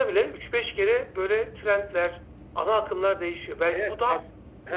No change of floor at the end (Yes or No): No